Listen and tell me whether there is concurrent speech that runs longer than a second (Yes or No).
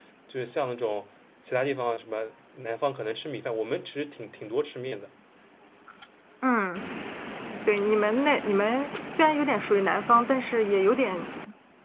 No